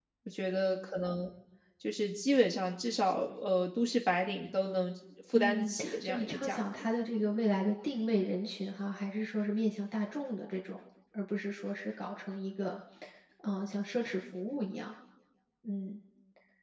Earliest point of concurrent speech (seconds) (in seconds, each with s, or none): 5.3 s